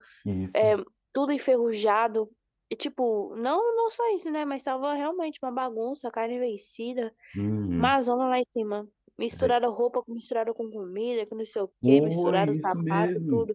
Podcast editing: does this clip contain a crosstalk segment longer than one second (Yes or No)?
Yes